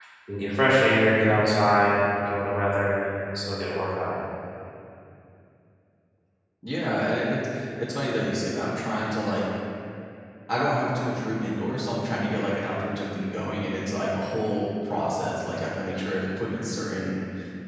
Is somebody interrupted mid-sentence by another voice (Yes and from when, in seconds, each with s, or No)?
No